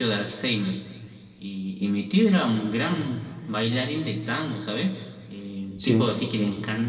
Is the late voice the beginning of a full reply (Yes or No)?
No